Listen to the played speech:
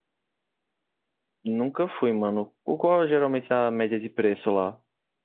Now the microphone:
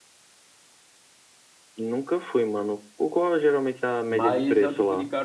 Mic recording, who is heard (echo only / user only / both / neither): both